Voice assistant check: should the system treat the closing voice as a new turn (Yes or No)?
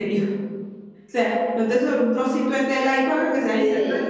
No